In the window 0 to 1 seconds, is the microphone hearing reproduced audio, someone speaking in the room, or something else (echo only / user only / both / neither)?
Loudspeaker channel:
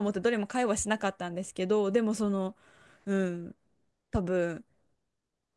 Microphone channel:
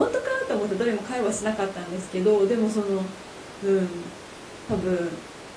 echo only